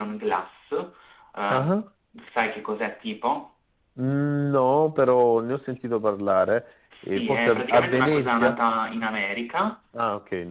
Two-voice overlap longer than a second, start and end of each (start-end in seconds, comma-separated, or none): 7.0-8.6